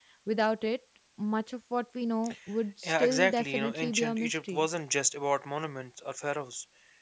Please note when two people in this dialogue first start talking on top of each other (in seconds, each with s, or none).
2.8 s